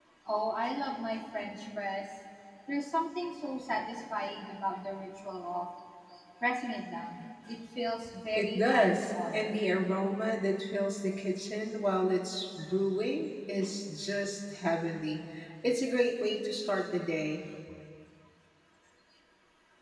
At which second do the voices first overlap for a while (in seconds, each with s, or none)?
8.4 s